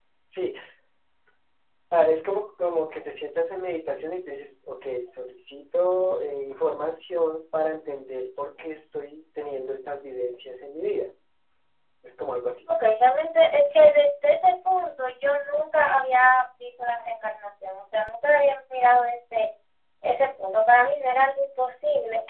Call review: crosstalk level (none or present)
none